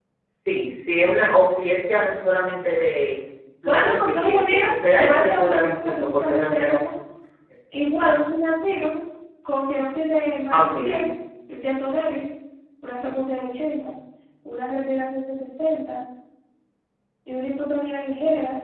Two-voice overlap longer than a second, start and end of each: 3.6-6.8

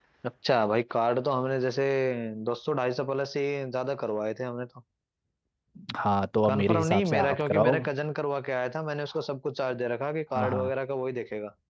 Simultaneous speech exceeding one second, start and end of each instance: 6.4-7.8

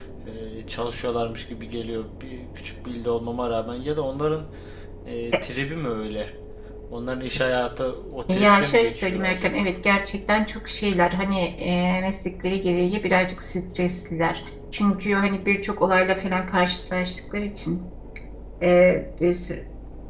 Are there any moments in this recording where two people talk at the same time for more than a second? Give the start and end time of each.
8.3-9.6

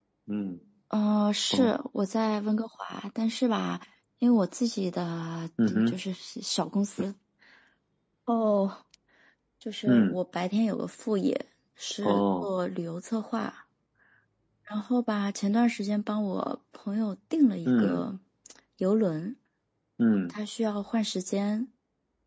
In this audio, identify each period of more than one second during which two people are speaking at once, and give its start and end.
none

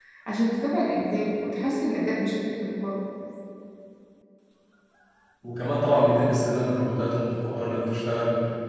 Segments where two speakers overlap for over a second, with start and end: none

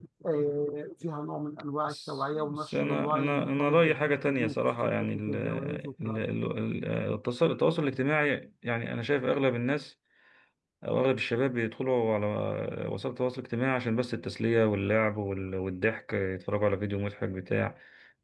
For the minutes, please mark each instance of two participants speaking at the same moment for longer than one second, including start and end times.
1.9-6.2

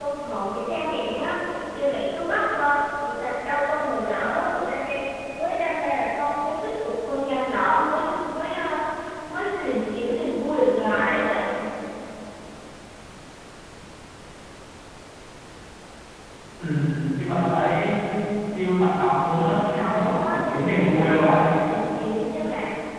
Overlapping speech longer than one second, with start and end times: 19.3-21.4

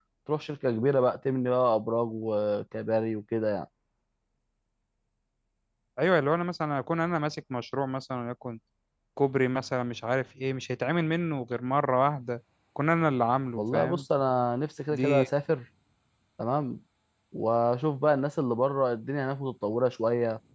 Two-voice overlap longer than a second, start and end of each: none

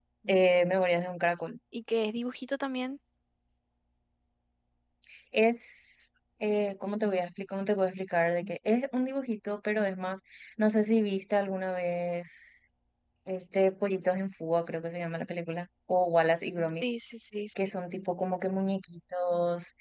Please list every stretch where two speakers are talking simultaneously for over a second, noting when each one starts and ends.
none

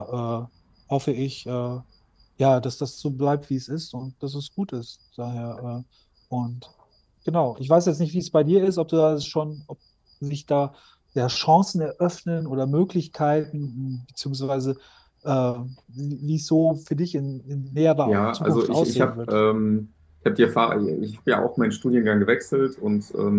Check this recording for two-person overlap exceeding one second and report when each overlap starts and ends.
18.1-19.3

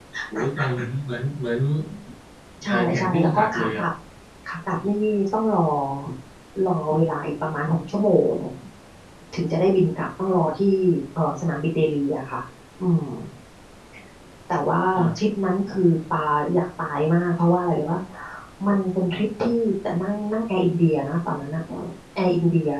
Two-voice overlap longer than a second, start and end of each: 2.6-3.8

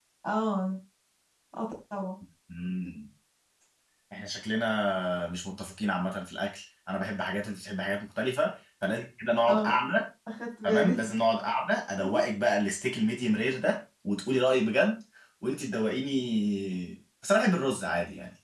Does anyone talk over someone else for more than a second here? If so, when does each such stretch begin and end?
none

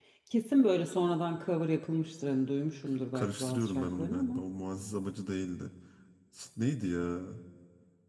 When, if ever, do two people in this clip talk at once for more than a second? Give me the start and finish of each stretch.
3.1-4.4

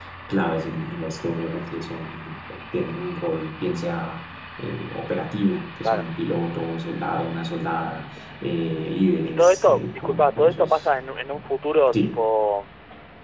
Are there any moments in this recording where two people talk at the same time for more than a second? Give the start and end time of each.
9.3-10.9

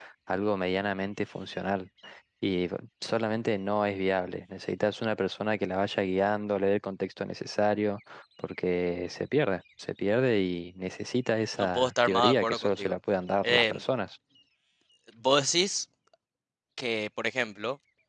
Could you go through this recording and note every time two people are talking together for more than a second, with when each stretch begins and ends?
11.6-12.9

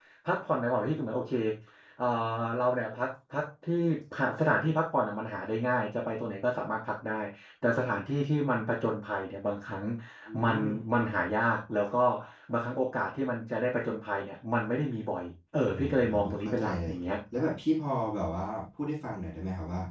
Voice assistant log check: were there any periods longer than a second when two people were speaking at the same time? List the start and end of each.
15.7-16.9

